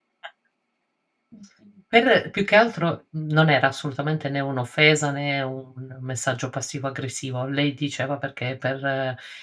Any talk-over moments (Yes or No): No